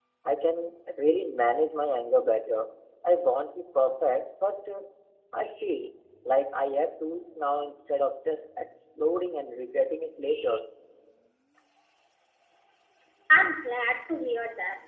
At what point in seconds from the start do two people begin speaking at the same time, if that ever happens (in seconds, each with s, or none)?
none